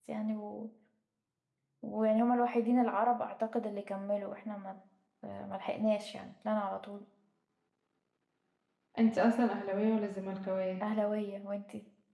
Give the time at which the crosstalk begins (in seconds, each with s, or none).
none